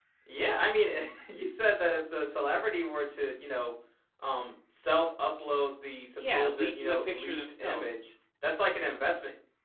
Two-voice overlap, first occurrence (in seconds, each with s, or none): 6.2 s